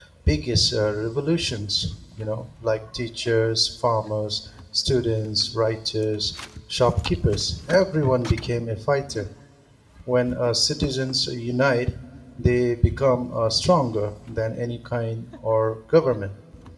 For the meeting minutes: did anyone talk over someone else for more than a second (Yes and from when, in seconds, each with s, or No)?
No